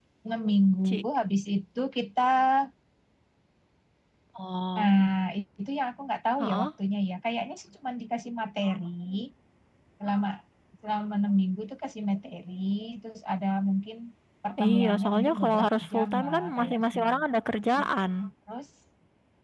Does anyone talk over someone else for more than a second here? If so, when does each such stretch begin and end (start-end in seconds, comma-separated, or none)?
14.6-17.2